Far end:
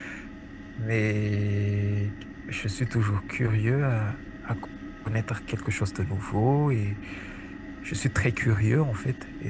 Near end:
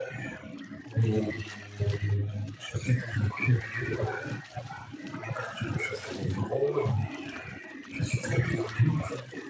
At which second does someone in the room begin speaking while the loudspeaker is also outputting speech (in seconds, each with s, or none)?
none